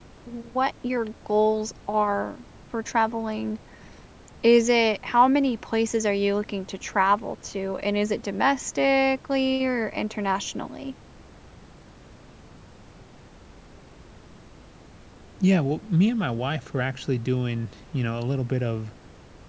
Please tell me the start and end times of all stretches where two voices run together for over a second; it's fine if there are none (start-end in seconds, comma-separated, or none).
none